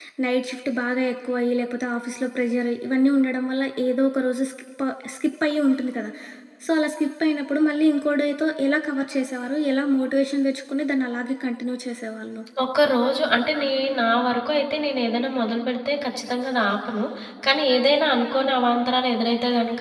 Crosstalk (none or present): none